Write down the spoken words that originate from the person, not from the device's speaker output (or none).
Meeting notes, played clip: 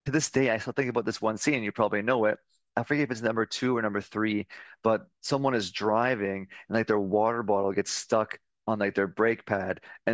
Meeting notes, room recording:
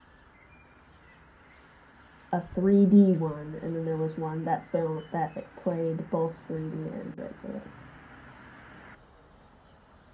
a 3D one, and then there was one that film that it played both 3D and regular.